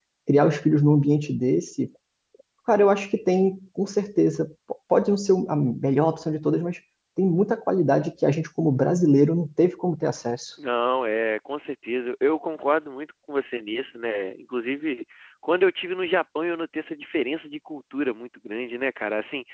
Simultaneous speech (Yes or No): No